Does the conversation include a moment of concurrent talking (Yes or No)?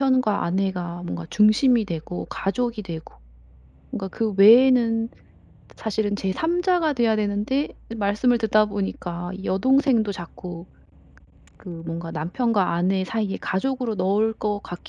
No